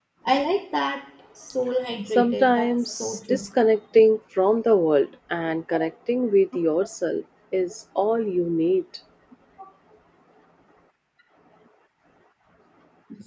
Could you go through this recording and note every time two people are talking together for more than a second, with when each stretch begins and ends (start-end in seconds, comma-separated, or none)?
2.1-3.5